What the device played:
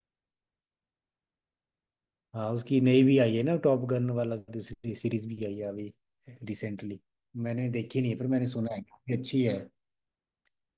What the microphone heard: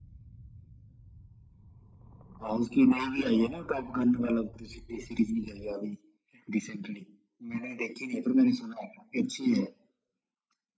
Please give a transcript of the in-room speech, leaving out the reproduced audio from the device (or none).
none